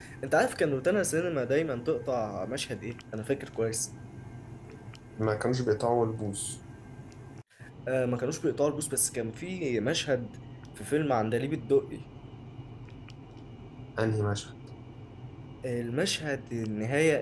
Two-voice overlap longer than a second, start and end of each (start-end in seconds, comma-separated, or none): none